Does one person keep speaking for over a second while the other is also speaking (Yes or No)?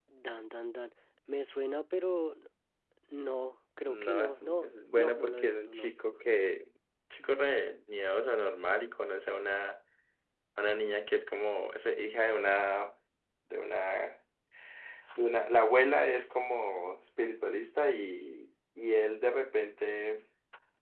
Yes